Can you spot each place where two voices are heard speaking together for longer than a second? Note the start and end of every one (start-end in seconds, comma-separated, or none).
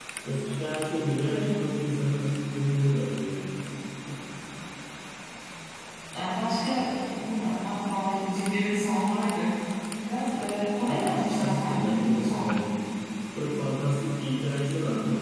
10.8-12.4